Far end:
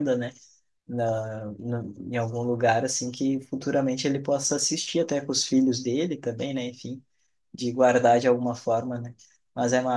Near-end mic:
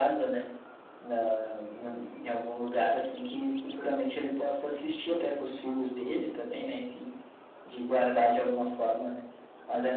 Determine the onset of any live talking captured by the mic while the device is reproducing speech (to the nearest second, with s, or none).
none